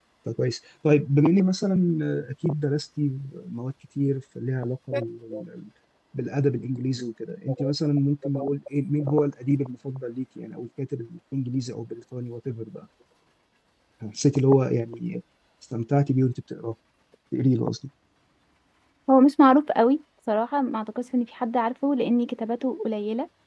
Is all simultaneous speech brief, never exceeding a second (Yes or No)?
Yes